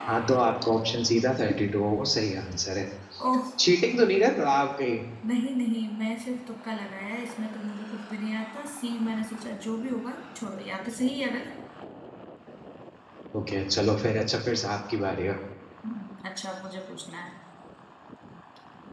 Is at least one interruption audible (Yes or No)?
No